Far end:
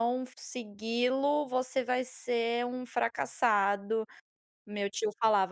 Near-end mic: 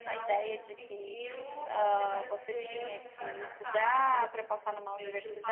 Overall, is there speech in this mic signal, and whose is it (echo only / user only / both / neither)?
both